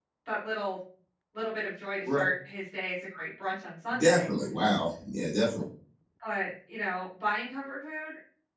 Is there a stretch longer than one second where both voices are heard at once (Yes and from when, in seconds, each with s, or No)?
No